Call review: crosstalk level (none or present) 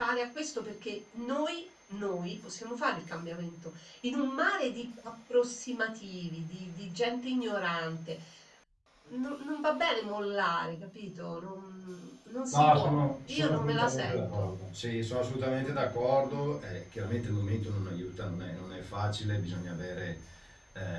present